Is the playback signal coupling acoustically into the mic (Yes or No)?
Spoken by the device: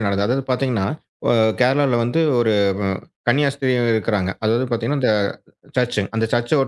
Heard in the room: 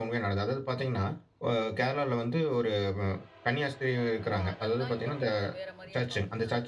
Yes